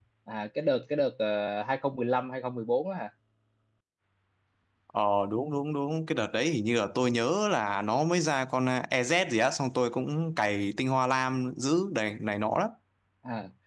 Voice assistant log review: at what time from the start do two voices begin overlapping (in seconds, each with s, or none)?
none